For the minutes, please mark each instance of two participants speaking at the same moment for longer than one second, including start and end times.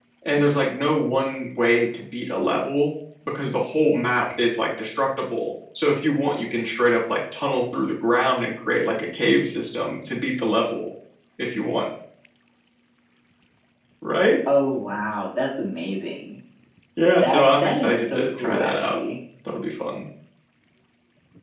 17.2-19.0

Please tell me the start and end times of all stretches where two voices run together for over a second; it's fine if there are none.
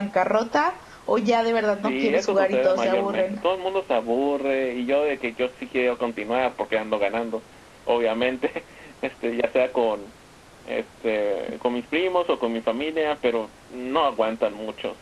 1.7-3.4

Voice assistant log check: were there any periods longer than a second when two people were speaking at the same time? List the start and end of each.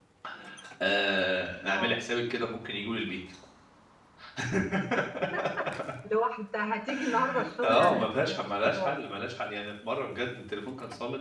7.6-8.9

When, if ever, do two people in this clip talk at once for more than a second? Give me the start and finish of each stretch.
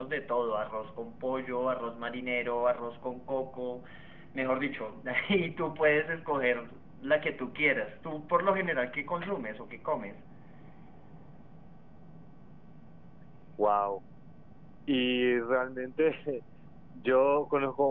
none

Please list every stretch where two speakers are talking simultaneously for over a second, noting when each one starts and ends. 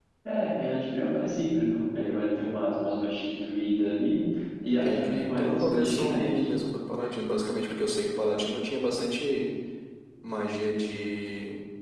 4.8-6.3

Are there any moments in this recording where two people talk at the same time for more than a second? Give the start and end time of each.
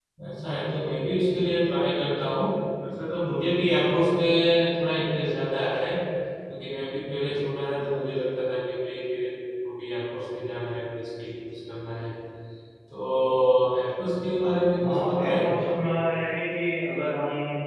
14.8-16.0

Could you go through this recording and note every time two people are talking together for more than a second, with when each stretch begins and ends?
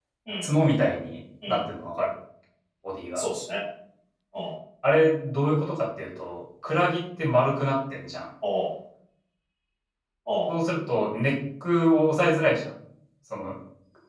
none

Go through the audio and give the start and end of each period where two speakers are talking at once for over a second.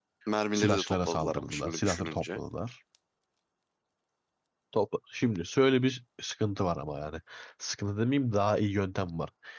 0.5-2.4

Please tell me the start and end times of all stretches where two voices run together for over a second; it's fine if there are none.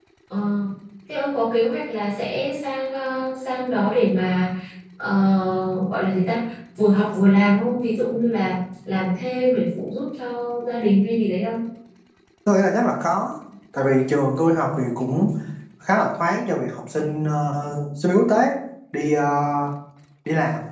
none

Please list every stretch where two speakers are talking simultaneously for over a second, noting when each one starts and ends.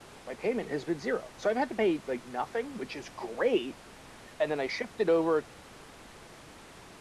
none

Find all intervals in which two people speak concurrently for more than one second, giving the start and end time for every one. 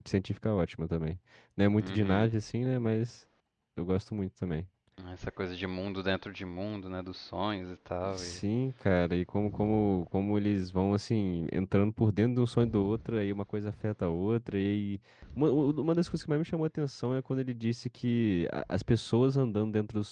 none

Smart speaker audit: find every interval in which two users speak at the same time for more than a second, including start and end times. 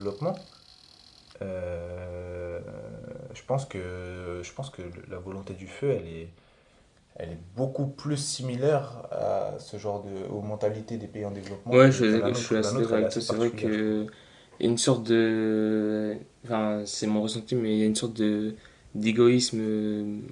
11.7-14.0

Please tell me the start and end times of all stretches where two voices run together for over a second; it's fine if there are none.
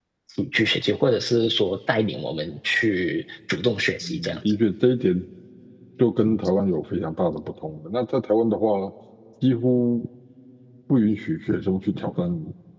none

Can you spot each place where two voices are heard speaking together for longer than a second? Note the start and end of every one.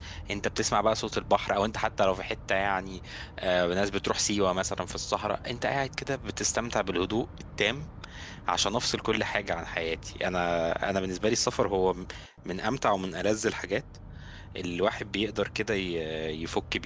none

